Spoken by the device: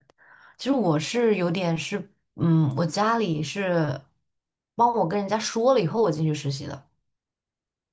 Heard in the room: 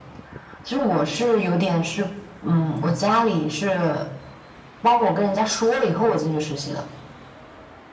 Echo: present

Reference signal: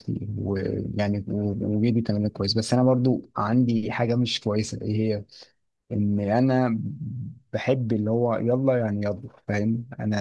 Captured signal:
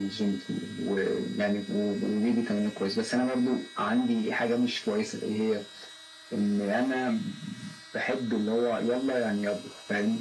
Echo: present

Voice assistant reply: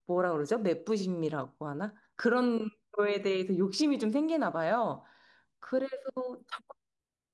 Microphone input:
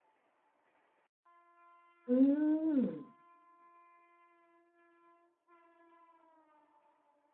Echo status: none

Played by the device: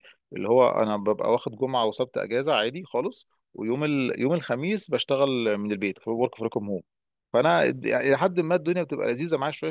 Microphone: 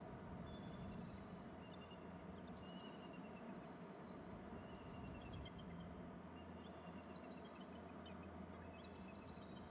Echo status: none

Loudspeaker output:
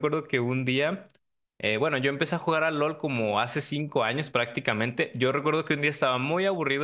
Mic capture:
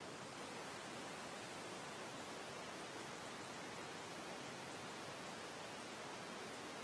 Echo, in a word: none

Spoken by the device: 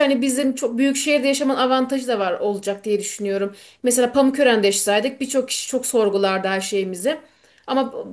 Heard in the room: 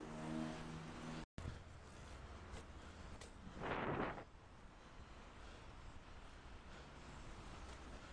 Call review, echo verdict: none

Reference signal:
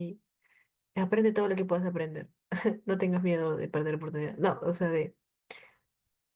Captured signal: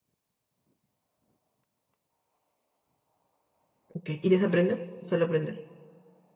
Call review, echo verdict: none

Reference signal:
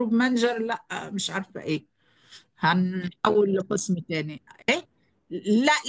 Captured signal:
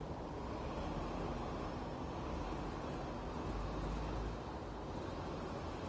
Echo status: none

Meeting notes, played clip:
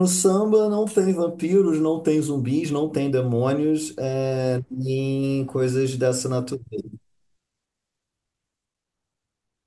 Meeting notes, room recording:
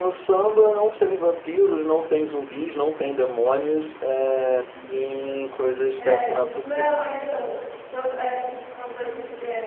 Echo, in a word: present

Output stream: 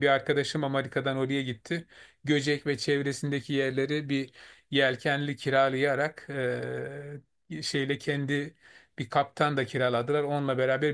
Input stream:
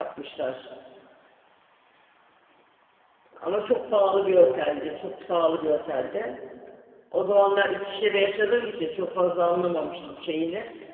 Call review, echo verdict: none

